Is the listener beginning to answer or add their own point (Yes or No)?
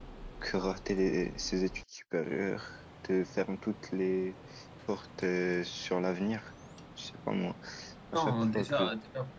Yes